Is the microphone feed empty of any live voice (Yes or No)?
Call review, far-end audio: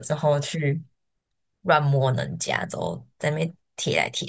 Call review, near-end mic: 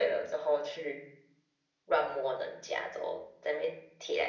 Yes